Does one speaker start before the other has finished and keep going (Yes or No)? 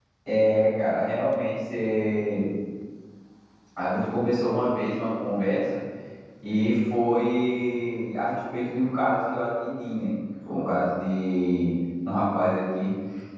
No